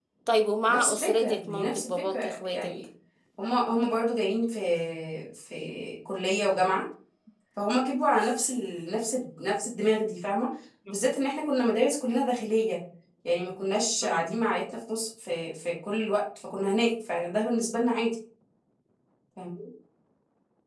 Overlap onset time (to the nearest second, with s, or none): 1 s